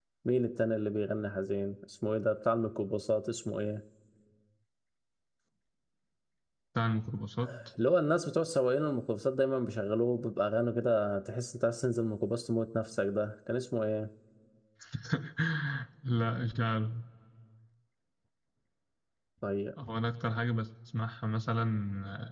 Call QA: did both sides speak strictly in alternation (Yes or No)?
Yes